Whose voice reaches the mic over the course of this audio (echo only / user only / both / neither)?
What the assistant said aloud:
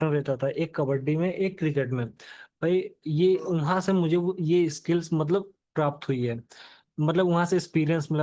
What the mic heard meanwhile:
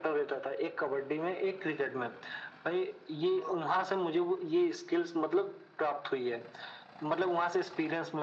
echo only